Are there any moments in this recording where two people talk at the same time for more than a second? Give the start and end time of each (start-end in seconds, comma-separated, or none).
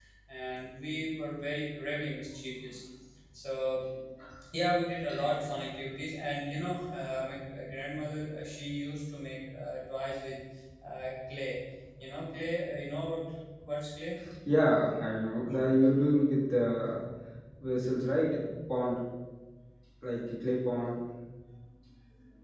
none